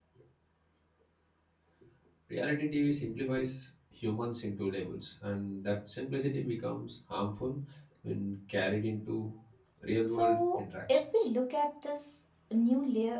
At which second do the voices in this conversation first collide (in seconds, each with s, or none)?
10.0 s